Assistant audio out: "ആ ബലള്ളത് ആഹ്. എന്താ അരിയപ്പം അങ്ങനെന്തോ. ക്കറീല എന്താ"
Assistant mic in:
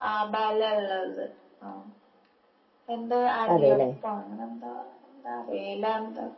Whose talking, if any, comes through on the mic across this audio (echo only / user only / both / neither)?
both